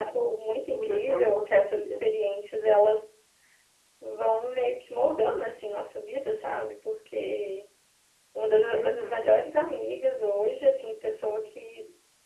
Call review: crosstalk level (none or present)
present